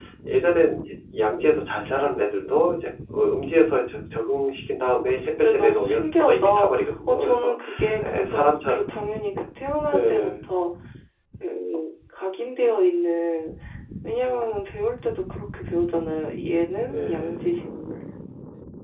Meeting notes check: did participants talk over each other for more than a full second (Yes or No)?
Yes